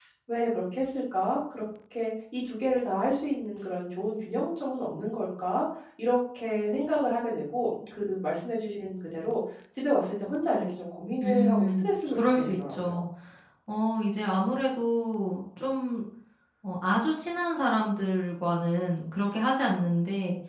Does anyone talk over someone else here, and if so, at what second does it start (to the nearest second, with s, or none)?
11 s